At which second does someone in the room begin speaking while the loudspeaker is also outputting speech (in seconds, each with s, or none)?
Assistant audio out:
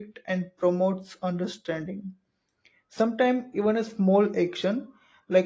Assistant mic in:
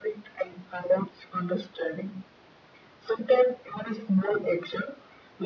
none